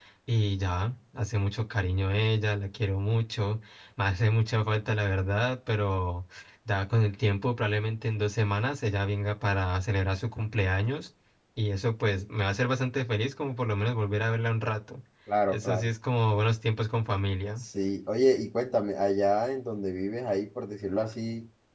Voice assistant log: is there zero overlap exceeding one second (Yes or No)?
Yes